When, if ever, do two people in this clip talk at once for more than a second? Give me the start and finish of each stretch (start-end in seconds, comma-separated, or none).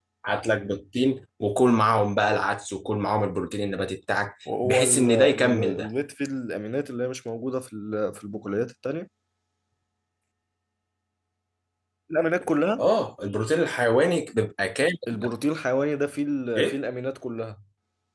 4.6-5.9